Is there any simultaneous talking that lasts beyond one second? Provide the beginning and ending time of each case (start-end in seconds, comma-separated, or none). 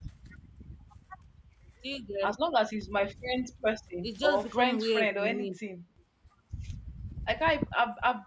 4.0-5.5